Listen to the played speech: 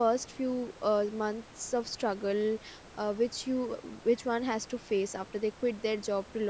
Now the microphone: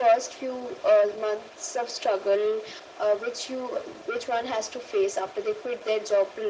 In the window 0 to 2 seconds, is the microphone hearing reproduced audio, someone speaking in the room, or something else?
echo only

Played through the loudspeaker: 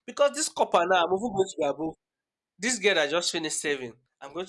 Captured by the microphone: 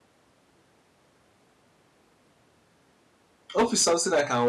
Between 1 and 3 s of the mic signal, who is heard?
neither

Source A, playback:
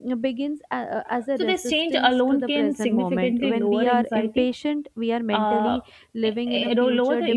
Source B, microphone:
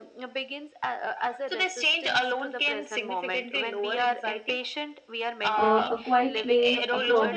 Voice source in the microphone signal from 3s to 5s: echo only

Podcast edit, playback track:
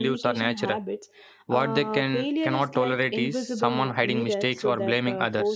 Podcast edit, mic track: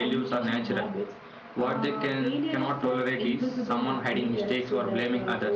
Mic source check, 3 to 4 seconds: echo only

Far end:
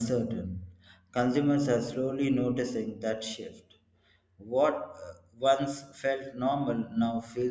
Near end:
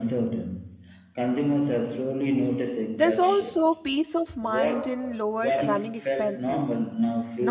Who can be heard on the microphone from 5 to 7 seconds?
both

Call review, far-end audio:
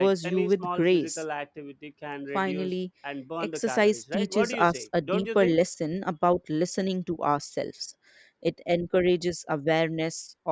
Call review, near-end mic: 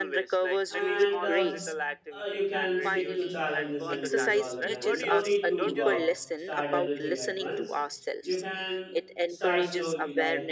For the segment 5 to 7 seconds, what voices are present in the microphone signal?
both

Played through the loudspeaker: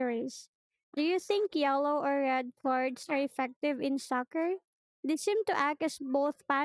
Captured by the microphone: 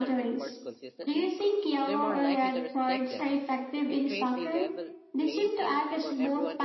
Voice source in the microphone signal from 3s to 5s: both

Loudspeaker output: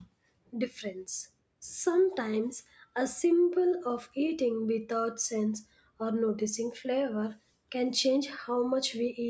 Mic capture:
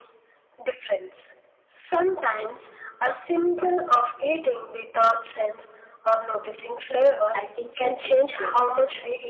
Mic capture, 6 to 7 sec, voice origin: echo only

